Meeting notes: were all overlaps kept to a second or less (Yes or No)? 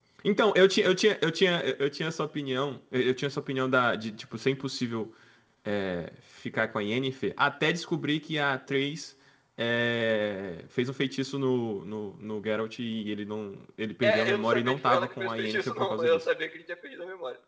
No